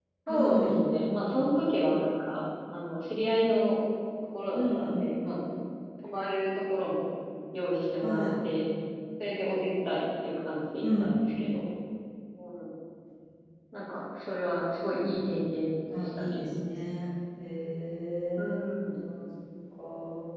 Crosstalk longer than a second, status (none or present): none